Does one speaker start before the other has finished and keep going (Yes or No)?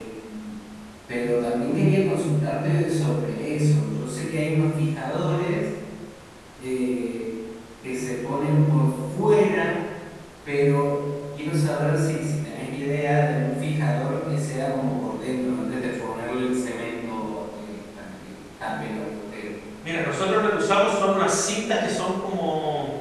No